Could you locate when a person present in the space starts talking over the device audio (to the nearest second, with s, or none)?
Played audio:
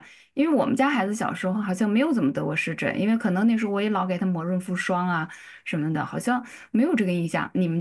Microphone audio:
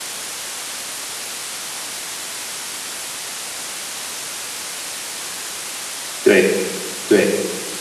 6 s